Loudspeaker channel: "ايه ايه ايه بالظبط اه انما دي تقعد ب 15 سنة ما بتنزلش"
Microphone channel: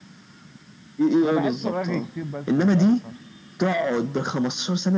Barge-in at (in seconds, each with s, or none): 1.2 s